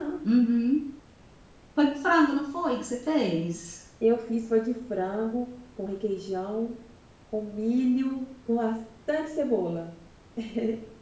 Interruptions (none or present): none